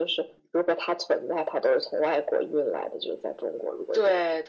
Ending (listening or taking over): taking over